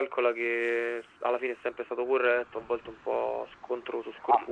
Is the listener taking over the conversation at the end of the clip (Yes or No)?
Yes